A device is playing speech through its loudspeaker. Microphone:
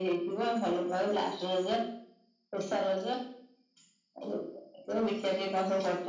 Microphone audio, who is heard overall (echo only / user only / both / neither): echo only